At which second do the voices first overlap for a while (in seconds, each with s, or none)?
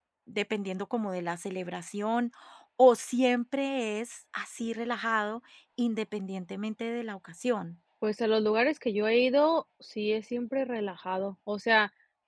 none